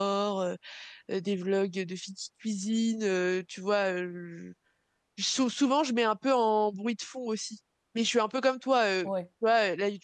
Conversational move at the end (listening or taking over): listening